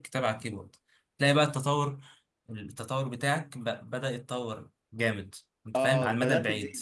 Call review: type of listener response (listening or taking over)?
taking over